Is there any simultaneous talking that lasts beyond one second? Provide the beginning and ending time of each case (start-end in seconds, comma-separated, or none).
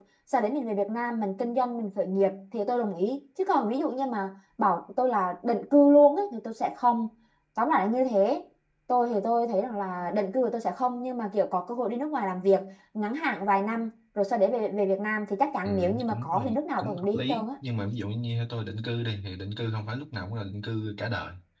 15.7-17.5